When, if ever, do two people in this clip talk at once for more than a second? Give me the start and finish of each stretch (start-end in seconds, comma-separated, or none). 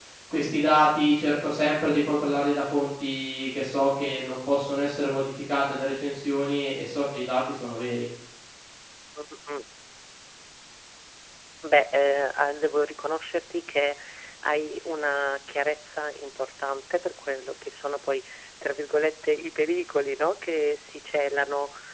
none